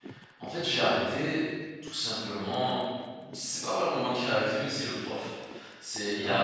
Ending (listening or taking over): listening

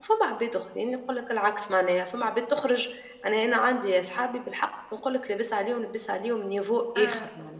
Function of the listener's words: listening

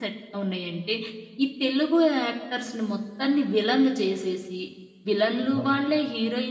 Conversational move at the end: listening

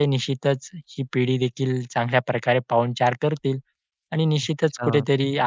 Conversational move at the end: listening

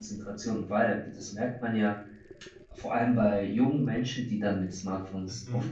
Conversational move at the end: listening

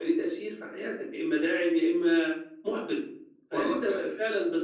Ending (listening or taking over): listening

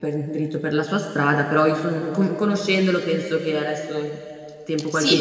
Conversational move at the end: taking over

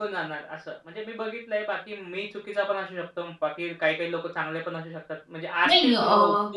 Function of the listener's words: taking over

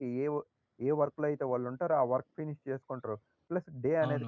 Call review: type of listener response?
taking over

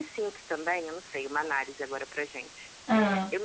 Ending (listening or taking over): listening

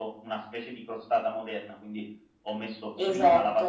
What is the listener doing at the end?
listening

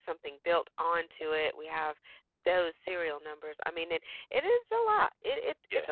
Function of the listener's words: listening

